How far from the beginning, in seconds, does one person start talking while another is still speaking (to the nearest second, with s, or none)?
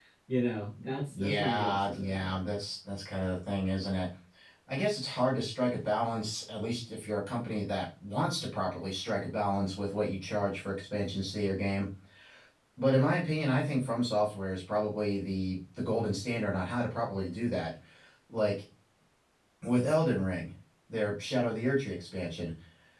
1 s